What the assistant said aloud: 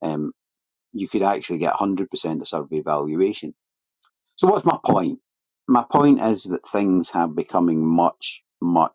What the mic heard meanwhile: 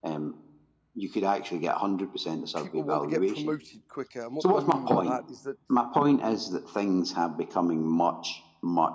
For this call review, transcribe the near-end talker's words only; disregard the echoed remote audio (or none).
people want to get promoted quicker. And what do I mean by that is that